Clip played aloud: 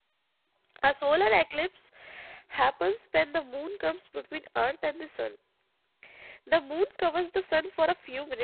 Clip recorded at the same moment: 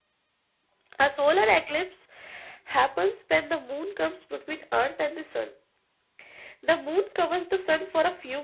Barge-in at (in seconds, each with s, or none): none